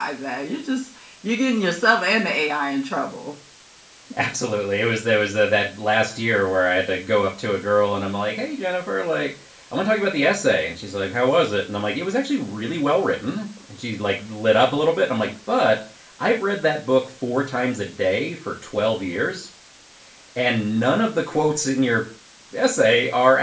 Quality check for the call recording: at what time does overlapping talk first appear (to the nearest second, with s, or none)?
none